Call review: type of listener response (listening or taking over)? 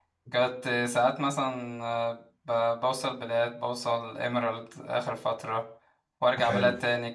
listening